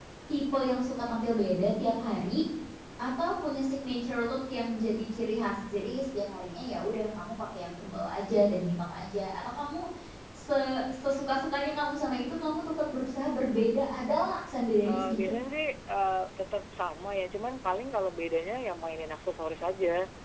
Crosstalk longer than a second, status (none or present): none